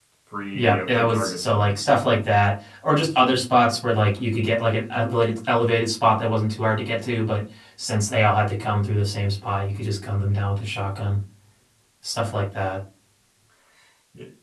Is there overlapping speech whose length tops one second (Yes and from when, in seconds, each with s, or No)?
Yes, from 0.5 s